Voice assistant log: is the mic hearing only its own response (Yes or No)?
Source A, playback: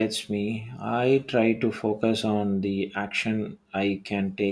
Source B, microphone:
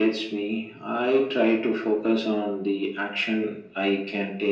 Yes